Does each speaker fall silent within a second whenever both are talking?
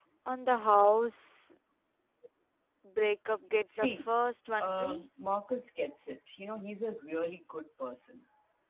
Yes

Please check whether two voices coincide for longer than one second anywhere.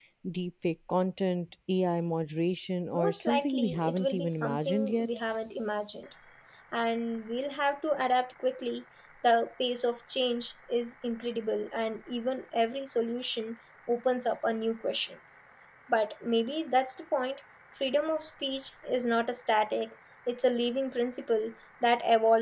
Yes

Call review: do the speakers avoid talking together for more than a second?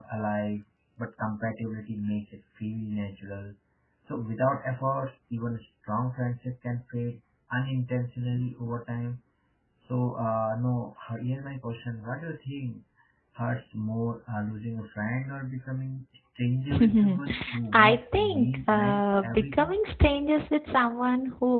No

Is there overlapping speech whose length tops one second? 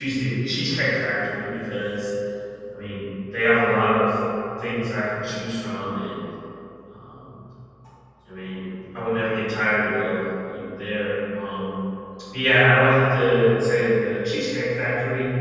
No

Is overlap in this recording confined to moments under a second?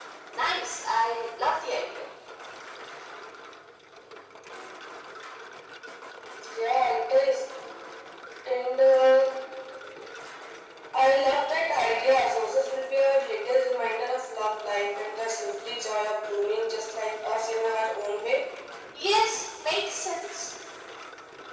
Yes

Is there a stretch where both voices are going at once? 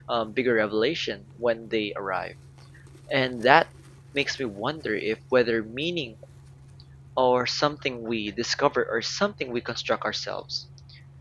No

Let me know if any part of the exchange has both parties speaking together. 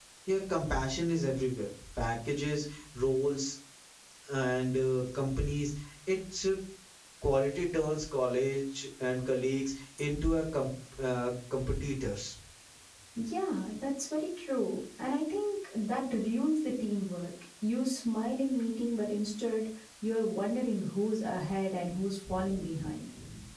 No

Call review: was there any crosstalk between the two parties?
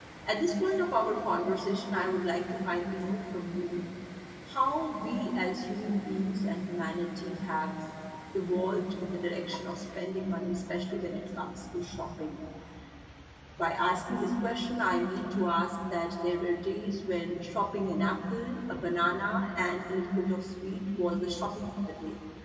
No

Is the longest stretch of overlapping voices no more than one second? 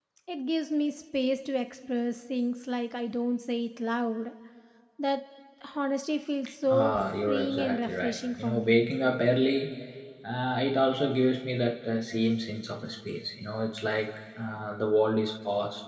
No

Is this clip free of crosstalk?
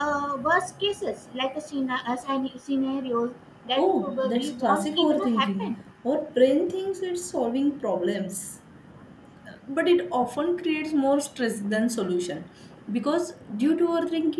No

